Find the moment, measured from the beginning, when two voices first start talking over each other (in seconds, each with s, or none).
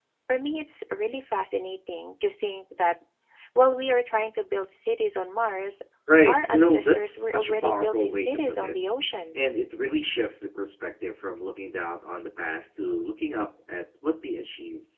6.3 s